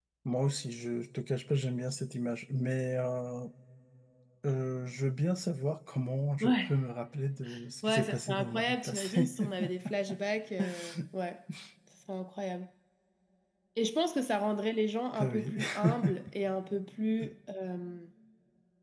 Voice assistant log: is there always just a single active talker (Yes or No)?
No